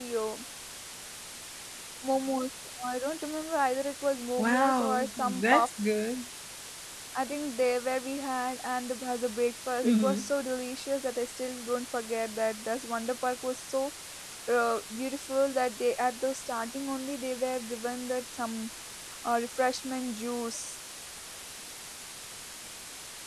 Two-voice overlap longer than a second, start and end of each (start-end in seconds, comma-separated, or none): 4.4-5.7